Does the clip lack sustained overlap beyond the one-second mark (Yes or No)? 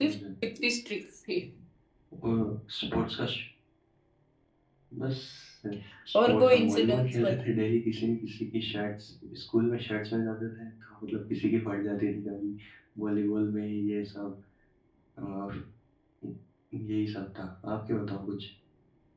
No